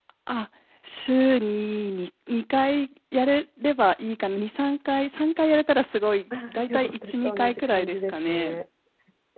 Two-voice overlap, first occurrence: 6.3 s

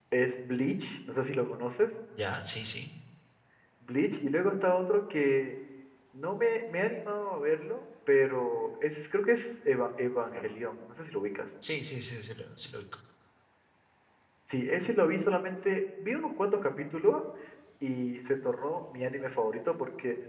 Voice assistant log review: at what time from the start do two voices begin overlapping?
none

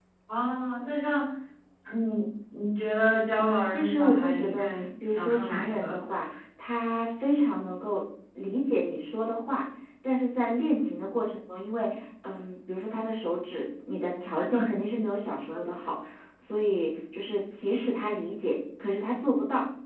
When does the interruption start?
3.4 s

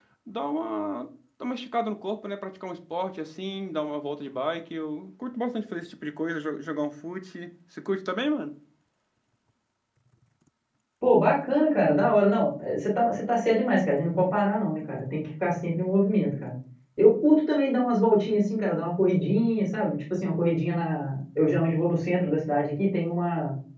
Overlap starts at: none

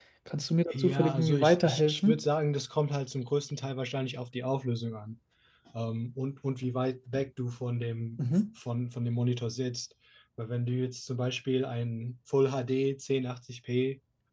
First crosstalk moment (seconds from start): 0.7 s

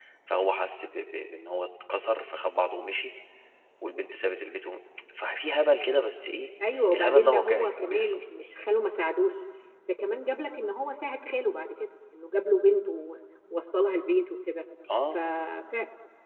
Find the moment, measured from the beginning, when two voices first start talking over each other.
6.9 s

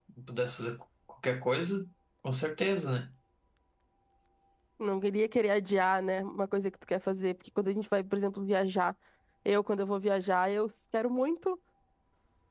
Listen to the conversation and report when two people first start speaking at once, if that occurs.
none

